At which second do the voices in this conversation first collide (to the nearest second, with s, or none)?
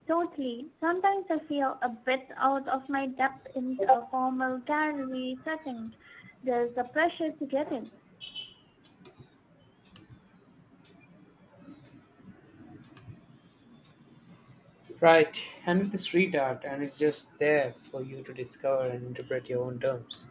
none